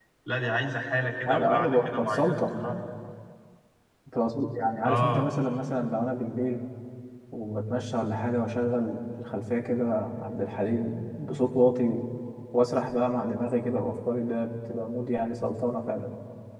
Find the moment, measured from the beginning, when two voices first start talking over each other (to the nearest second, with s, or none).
1 s